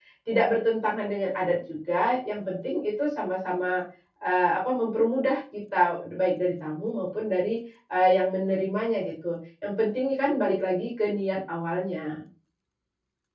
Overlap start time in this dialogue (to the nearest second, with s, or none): none